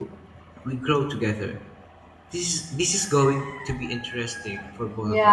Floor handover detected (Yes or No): Yes